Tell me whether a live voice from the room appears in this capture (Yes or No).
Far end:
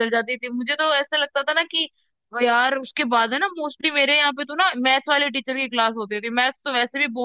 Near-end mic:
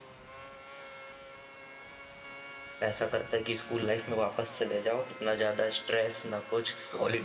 Yes